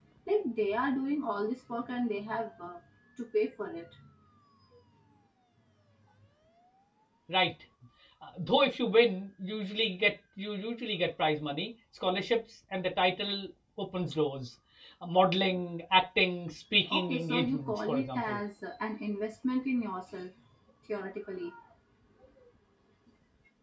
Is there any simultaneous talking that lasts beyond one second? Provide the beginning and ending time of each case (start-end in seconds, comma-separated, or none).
16.9-18.4